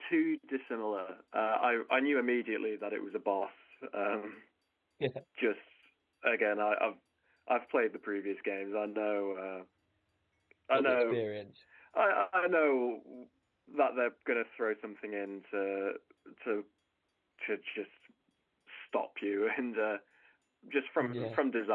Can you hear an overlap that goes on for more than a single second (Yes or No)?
No